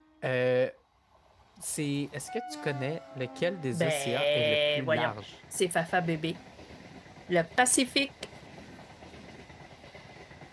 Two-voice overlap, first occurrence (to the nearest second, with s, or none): 4 s